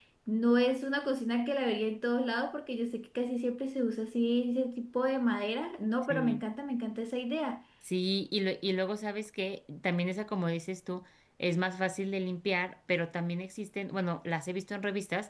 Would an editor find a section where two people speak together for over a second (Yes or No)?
No